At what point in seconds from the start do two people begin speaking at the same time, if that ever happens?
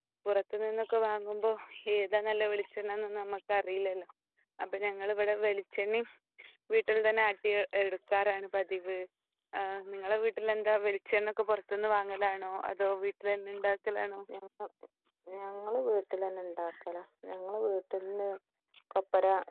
none

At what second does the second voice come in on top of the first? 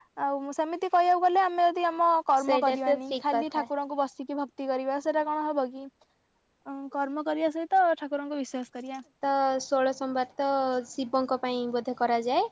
2.4 s

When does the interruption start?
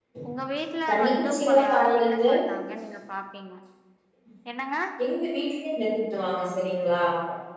0.9 s

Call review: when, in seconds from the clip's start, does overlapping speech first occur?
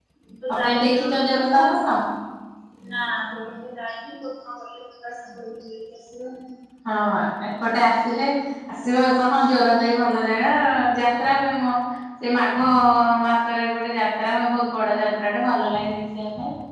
0.6 s

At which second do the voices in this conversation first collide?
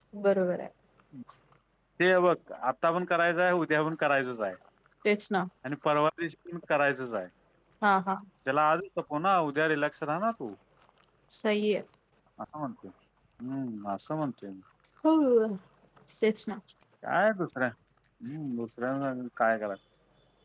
none

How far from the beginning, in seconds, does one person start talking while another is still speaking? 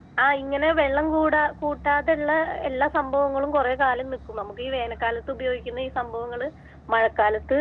none

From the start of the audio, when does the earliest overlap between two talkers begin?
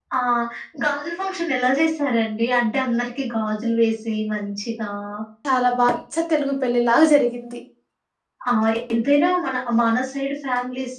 none

